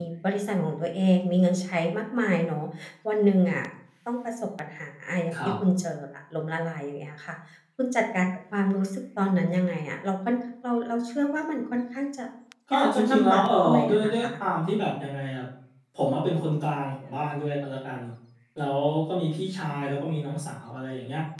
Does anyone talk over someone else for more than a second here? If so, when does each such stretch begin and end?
12.7-14.2

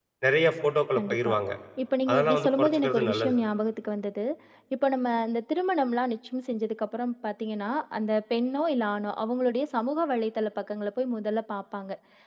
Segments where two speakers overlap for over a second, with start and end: 2.1-3.3

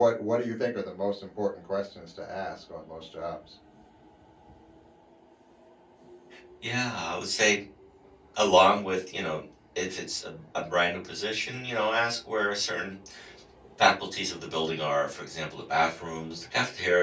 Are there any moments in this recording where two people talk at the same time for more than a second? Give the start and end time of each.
none

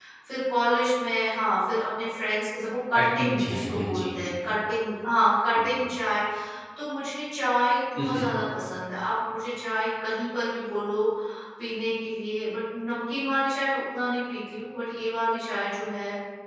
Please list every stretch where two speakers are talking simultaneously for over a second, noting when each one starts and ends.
3.0-4.2

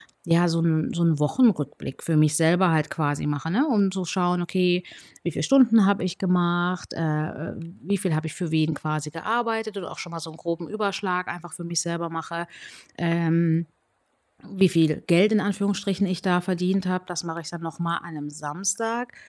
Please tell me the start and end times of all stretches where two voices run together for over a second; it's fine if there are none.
none

